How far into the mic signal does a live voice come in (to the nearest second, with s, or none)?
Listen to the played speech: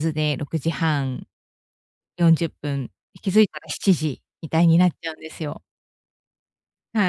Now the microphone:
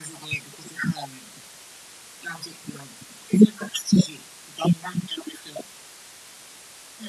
none